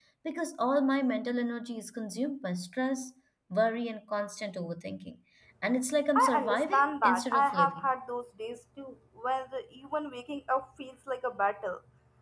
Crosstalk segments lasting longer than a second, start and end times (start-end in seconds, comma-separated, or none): 6.2-7.9